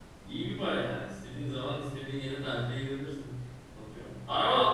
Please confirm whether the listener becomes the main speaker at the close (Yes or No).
No